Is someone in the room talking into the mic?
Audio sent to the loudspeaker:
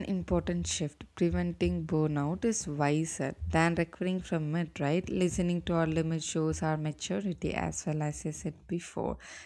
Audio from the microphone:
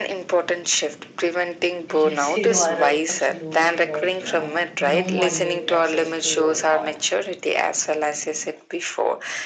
Yes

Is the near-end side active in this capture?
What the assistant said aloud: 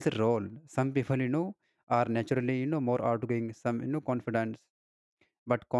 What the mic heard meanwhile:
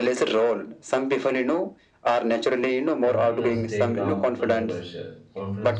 Yes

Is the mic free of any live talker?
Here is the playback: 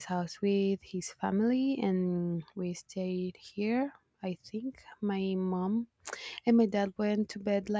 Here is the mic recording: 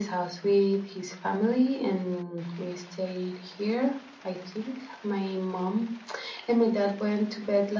Yes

